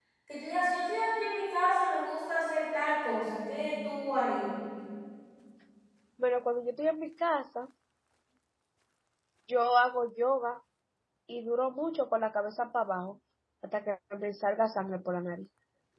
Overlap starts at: none

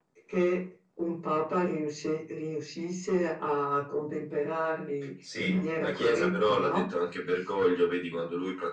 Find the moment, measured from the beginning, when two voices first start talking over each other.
5.2 s

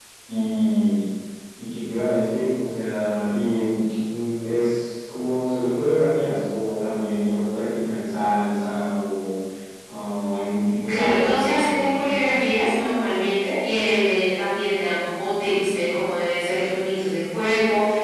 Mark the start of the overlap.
10.9 s

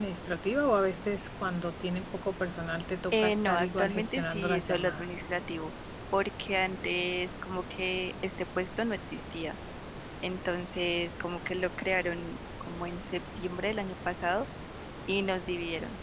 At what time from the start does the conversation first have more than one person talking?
3.1 s

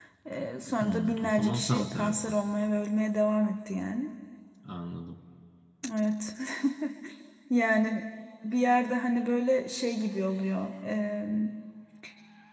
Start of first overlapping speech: 0.8 s

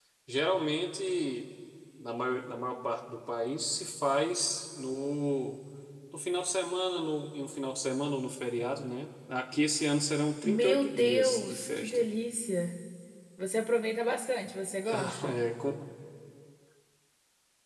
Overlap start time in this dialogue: 10.4 s

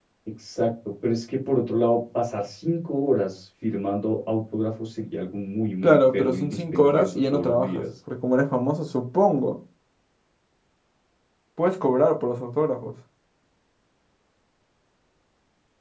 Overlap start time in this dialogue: 5.8 s

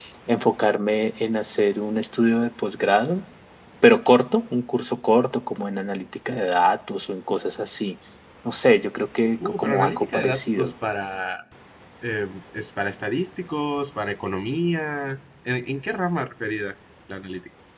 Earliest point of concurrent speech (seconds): 9.4 s

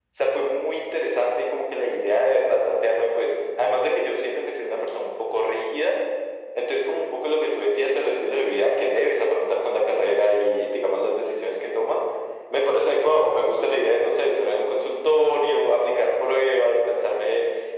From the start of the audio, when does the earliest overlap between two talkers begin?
none

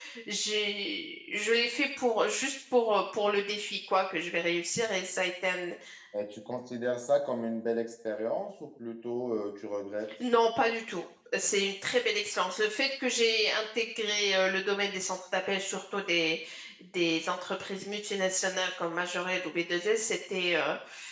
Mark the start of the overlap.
none

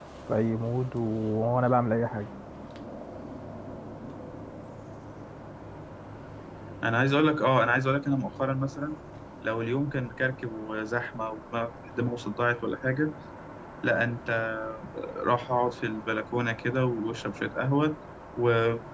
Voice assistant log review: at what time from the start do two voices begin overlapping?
none

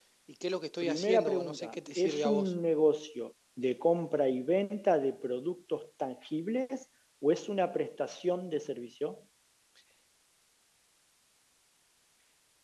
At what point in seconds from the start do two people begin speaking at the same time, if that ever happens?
0.8 s

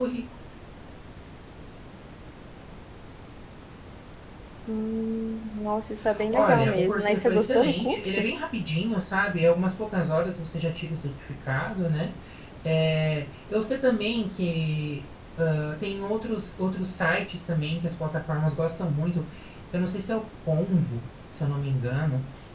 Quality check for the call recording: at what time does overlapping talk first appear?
6.3 s

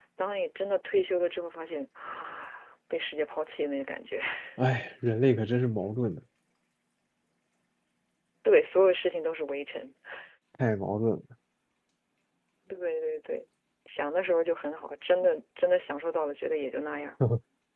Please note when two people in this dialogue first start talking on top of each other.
none

